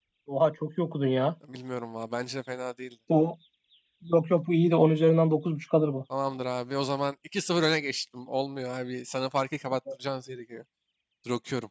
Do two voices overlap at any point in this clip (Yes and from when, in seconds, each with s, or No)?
No